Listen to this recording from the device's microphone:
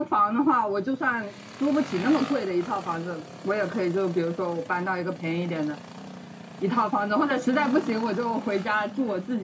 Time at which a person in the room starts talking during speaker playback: none

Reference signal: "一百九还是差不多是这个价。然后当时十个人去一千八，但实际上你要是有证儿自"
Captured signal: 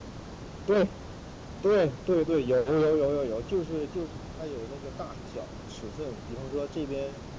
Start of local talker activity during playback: 0.6 s

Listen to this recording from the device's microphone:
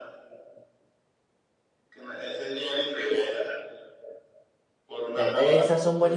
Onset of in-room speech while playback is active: 5.2 s

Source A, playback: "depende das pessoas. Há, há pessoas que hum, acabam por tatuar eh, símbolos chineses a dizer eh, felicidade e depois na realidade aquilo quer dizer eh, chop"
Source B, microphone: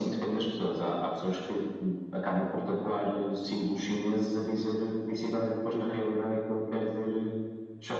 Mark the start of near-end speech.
none

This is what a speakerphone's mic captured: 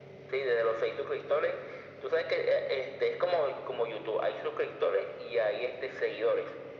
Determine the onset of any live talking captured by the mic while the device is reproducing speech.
none

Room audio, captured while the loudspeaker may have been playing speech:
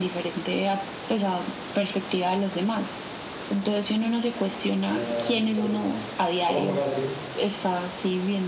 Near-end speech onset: 4.7 s

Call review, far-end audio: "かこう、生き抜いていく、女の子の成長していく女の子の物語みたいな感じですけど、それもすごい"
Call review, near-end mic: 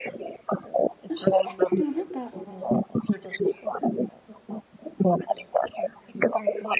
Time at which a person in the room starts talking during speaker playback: 1.1 s

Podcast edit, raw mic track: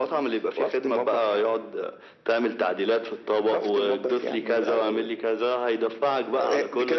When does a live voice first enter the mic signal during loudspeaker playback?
none

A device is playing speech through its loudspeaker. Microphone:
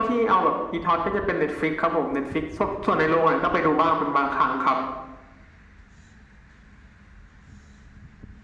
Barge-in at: none

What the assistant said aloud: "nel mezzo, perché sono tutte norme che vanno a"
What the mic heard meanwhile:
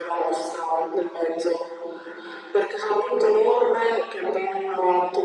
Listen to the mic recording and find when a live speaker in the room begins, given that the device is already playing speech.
none

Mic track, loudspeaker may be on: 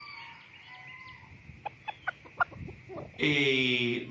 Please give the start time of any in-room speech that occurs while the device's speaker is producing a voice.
3.2 s

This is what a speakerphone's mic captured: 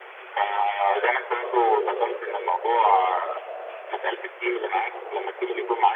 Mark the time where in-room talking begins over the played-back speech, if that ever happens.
none

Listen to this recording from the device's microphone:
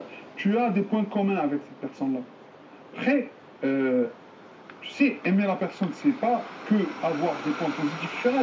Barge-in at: none

